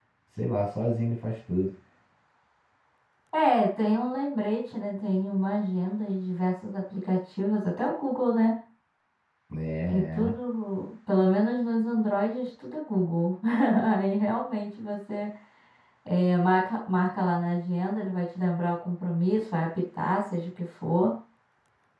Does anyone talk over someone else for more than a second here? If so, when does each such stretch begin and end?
none

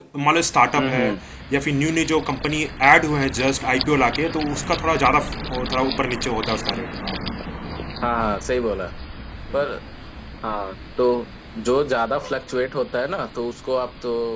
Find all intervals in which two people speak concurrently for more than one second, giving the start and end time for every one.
none

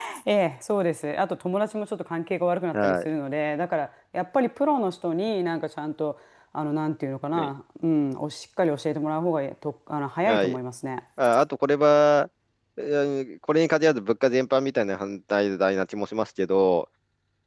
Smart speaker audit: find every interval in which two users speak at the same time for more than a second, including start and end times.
none

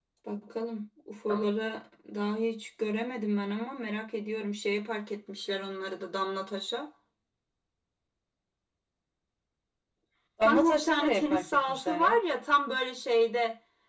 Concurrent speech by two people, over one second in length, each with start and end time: 10.4-12.2

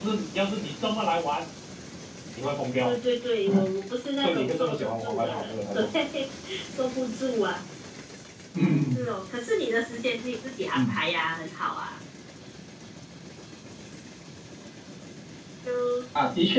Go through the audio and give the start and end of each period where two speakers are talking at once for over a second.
4.2-5.8

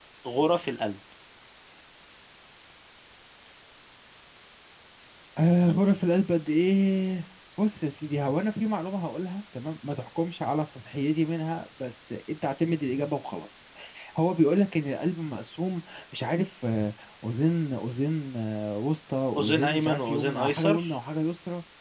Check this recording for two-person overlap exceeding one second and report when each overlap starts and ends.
19.4-20.9

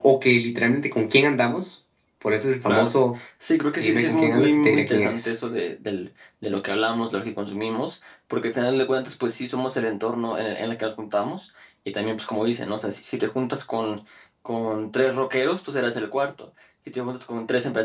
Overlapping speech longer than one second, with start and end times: 3.8-5.3

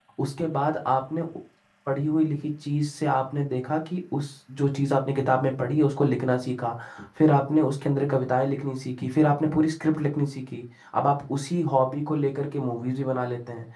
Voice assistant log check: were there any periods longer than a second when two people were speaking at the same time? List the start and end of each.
none

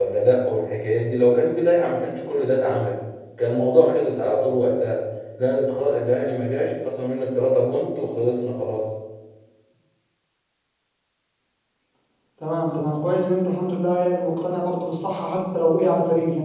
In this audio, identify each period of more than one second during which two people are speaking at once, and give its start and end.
none

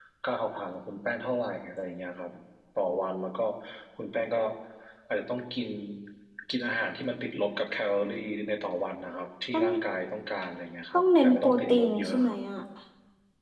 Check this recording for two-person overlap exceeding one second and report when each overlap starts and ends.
10.9-12.4

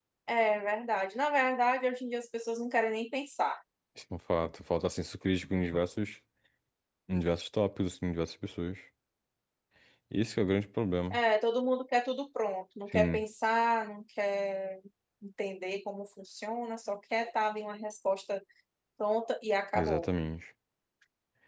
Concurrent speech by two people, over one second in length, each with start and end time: none

